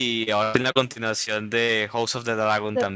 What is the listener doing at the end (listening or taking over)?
taking over